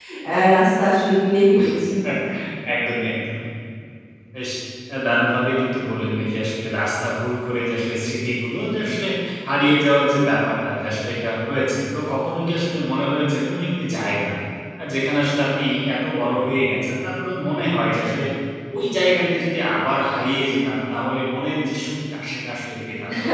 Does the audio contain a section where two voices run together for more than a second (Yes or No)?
No